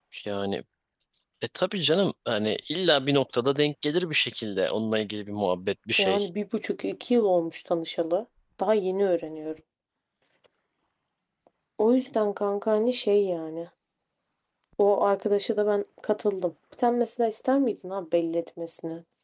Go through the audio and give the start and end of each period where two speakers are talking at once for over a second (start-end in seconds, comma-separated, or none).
none